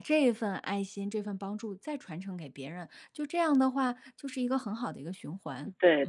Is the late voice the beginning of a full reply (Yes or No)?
Yes